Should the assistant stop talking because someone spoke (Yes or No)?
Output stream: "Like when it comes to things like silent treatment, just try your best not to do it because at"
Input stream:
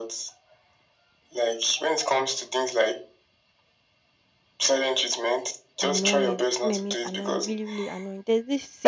Yes